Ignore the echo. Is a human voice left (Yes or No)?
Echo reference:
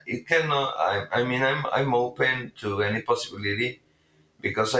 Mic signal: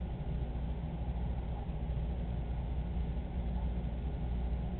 No